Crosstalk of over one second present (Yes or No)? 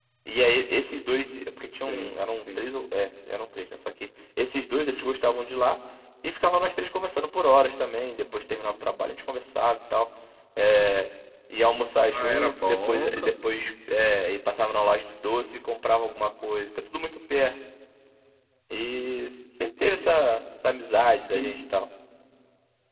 Yes